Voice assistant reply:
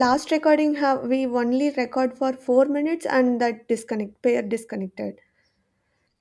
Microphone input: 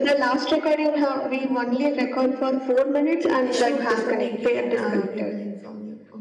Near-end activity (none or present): present